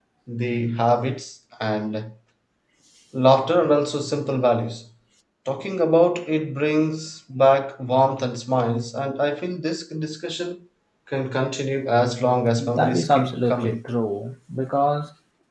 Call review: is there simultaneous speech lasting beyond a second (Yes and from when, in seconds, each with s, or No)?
Yes, from 12.6 s